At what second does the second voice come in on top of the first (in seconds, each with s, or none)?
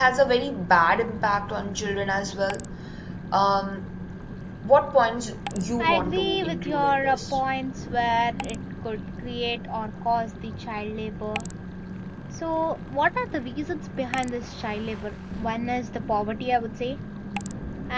5.8 s